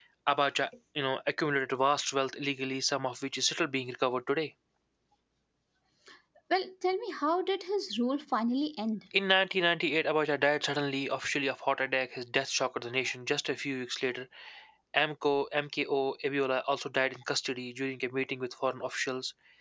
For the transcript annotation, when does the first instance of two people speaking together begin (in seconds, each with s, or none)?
none